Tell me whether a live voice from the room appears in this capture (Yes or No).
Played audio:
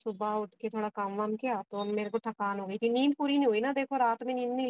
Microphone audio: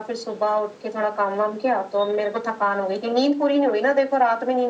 No